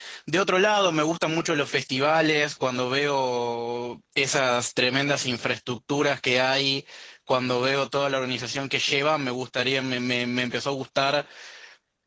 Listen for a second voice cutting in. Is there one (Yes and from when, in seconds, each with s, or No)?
No